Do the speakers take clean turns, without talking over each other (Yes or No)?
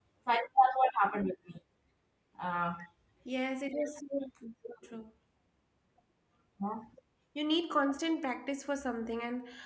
Yes